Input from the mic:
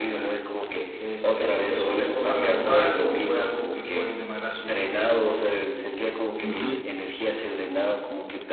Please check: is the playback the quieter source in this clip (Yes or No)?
Yes